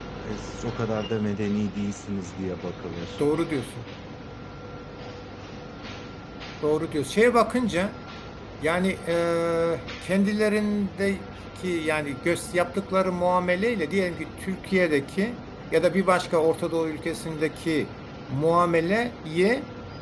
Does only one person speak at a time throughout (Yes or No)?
Yes